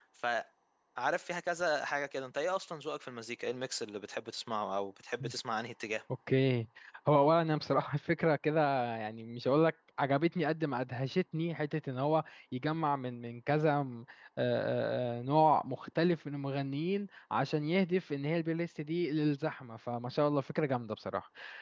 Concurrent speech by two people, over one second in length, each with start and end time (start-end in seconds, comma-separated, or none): none